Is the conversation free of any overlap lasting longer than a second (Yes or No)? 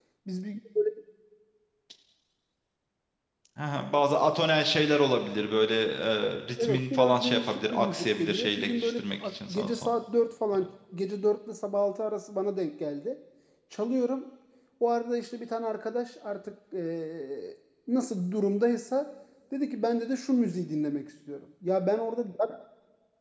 No